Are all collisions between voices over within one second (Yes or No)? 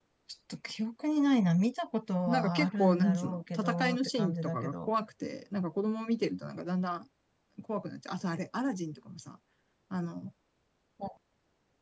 No